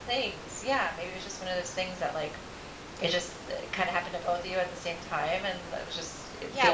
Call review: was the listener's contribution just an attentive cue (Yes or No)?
No